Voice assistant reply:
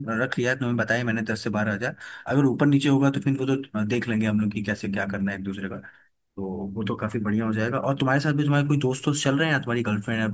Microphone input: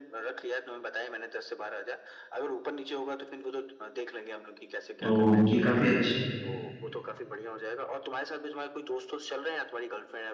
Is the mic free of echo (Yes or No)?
No